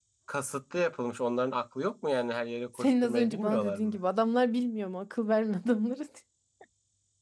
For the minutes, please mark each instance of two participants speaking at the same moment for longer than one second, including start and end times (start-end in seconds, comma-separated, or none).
2.7-4.0